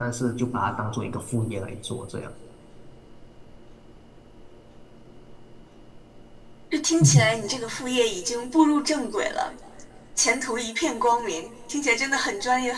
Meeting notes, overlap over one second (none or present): none